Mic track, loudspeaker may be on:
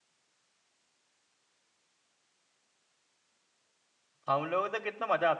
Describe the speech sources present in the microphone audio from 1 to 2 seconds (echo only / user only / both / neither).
neither